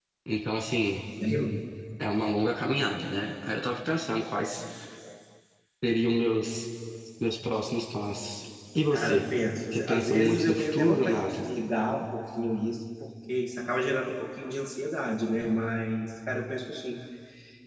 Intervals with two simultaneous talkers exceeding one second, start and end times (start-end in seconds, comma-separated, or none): 9.7-11.4